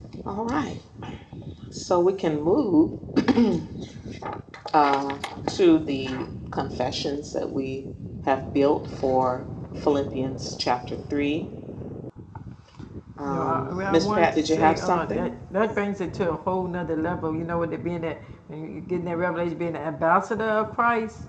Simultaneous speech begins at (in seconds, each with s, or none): 13.3 s